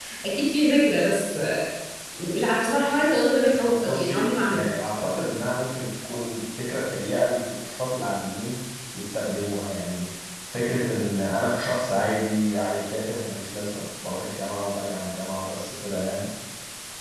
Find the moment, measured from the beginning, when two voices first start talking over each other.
3.6 s

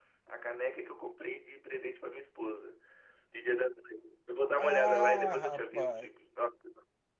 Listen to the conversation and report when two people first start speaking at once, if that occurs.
4.6 s

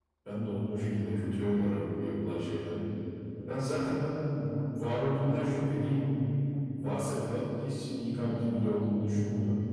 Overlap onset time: none

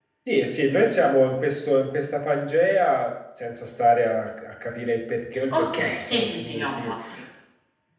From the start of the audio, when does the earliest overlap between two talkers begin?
5.5 s

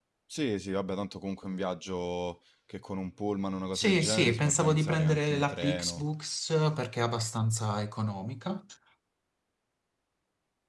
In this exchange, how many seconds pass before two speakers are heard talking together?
3.7 s

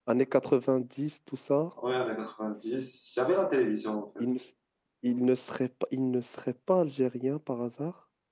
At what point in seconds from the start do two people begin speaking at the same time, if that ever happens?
none

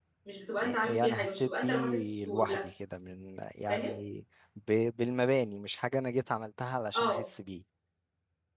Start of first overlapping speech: 0.8 s

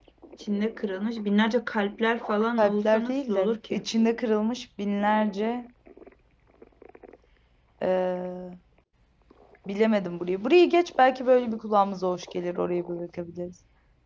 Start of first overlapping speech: 2.6 s

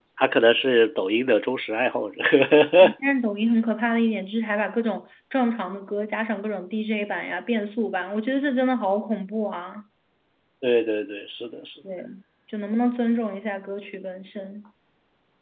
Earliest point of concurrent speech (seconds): none

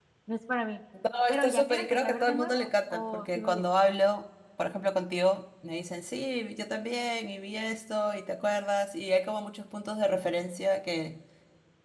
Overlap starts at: 1.3 s

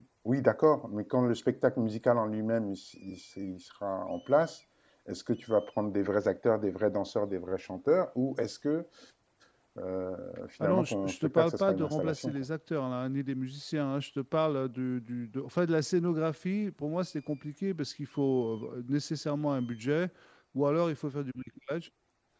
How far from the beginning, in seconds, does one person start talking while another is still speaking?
10.6 s

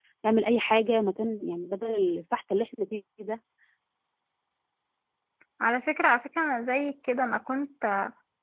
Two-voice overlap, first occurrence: none

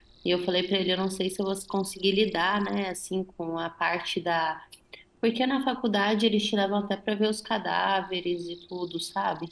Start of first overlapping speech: none

